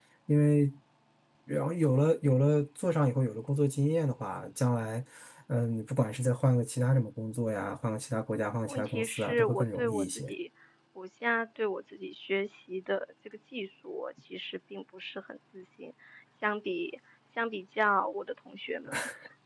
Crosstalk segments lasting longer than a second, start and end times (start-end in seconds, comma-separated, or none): 8.7-10.3